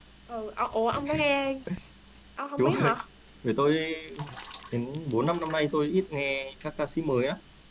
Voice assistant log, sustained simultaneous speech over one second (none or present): none